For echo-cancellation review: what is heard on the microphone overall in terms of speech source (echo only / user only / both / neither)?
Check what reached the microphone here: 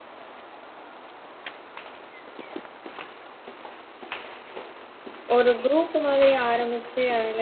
user only